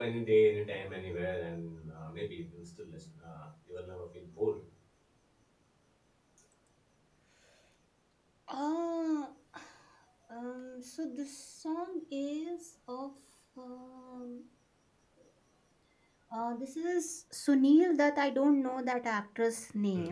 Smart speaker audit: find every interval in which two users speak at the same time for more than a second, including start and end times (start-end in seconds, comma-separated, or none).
none